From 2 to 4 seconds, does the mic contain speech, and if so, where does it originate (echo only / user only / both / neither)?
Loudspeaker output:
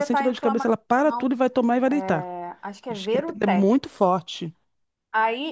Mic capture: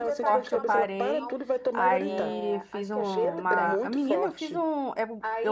both